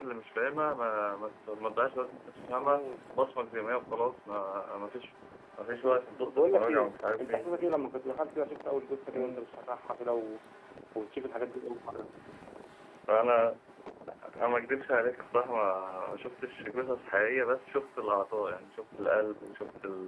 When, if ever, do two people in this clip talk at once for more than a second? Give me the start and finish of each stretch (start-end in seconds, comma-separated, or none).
5.7-7.5